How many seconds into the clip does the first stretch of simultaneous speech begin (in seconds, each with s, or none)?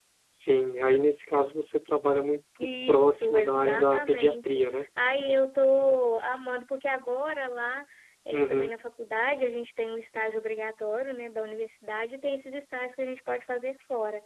2.6 s